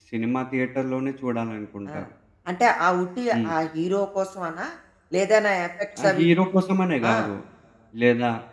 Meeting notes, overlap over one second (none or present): none